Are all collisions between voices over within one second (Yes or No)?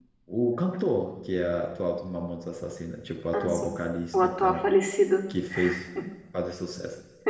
Yes